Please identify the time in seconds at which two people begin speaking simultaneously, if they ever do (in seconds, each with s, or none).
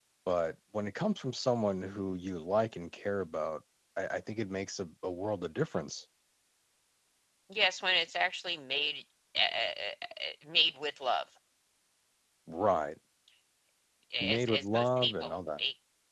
14.2 s